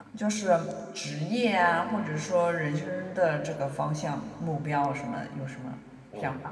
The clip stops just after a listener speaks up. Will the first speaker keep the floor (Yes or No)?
No